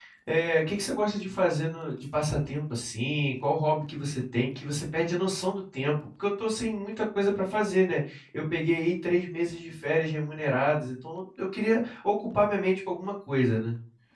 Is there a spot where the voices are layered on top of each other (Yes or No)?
No